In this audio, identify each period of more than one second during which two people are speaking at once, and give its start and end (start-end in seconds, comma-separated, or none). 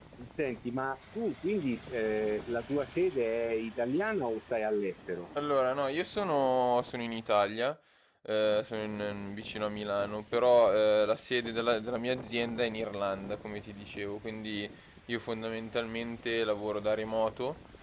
none